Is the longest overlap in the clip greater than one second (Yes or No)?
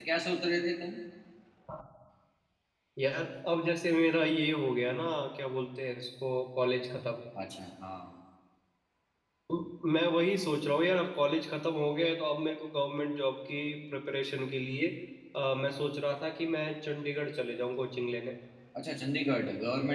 No